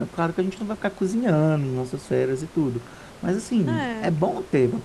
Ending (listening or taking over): listening